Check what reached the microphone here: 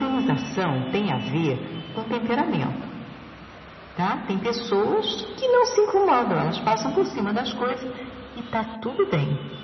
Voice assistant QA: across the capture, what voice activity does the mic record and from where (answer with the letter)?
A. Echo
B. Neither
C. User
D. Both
A